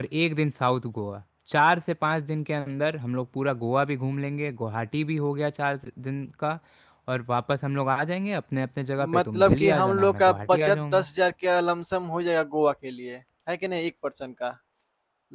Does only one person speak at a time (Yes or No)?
No